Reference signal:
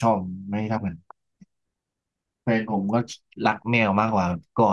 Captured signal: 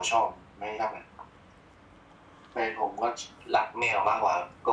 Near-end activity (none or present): none